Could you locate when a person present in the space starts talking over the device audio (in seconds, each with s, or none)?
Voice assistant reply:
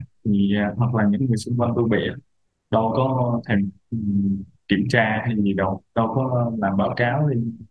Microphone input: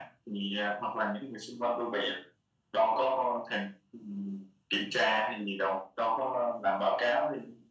none